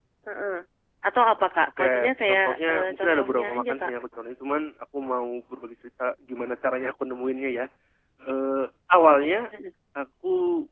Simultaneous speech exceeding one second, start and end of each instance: 1.8-3.9

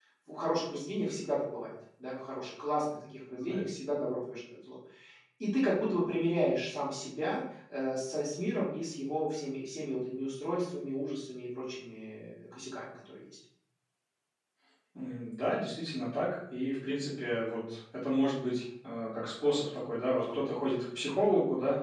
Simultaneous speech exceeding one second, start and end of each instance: none

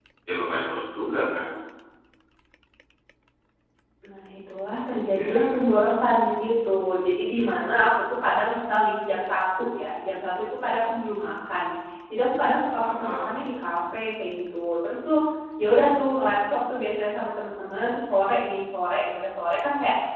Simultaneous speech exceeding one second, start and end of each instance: none

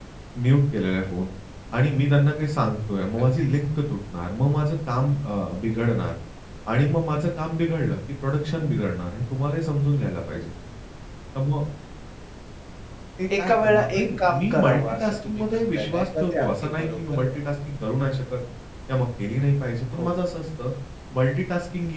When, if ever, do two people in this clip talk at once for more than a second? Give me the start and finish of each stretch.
13.4-17.4

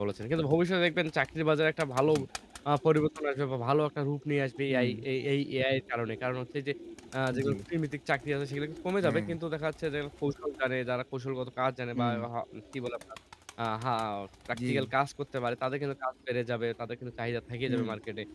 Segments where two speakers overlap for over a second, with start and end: none

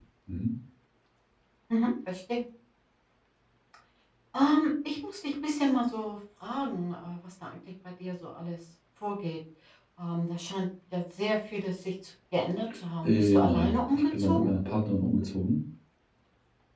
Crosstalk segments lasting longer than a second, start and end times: 13.0-14.5

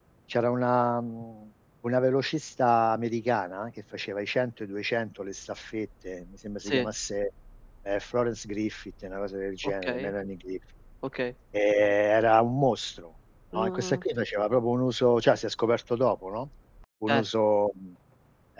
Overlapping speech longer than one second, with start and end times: none

